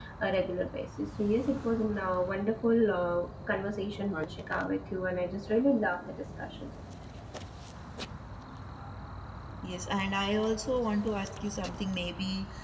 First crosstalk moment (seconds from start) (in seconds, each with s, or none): none